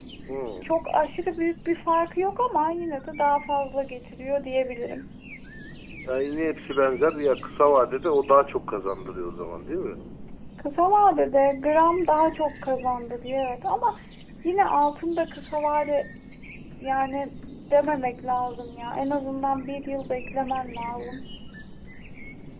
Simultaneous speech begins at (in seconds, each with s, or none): none